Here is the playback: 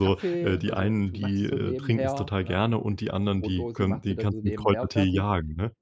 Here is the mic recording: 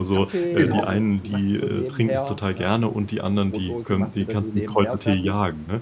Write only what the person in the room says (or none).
Genau.